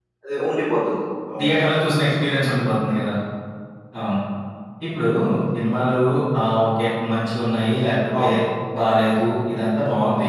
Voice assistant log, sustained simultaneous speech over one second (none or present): none